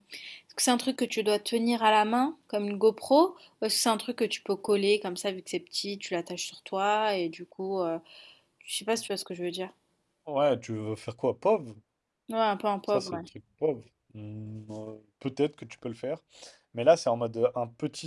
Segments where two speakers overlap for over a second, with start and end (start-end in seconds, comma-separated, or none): none